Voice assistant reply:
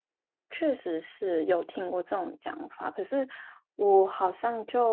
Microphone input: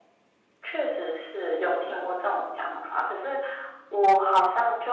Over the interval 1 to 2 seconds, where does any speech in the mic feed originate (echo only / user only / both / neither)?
echo only